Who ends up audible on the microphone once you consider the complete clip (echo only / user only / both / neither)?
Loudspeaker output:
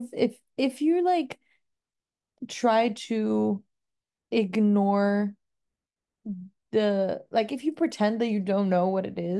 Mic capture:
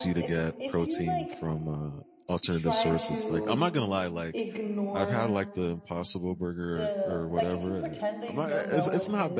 both